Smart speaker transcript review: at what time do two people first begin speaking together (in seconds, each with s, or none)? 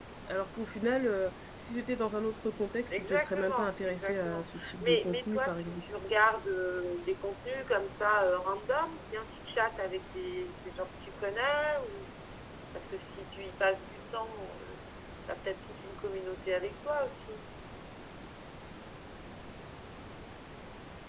2.9 s